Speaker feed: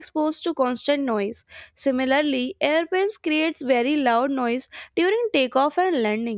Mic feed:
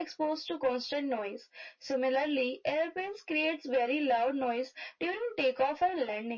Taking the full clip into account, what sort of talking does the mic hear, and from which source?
echo only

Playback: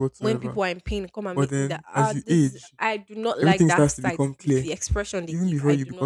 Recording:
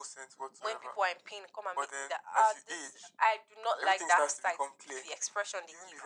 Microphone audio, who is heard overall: echo only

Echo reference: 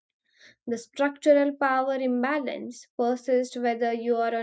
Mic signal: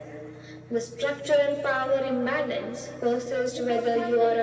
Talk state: both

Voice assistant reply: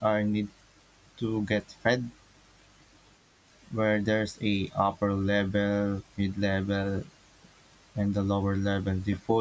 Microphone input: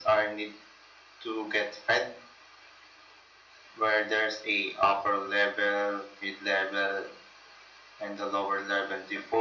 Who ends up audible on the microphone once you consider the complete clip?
echo only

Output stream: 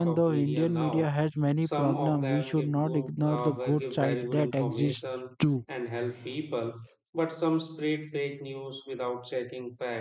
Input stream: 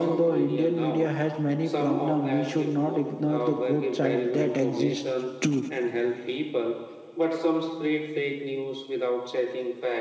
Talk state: echo only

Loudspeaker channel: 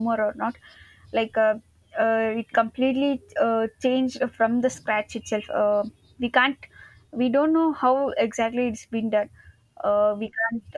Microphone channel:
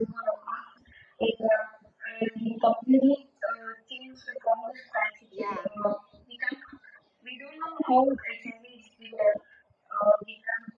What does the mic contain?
both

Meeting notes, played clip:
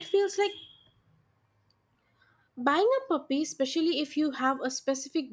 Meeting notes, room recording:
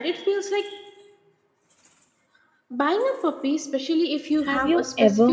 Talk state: both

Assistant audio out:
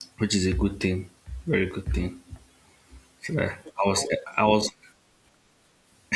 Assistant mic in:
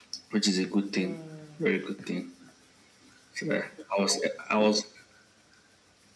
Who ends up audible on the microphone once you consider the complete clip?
both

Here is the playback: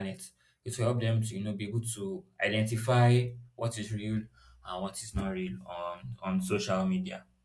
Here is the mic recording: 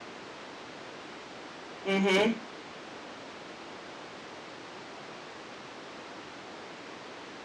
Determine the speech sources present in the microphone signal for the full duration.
user only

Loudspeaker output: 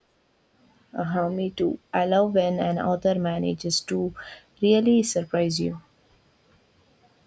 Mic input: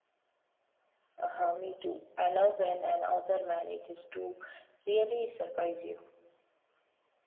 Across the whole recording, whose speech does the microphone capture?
echo only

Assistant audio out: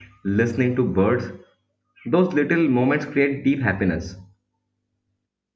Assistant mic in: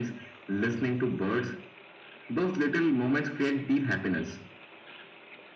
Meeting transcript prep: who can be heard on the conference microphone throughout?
echo only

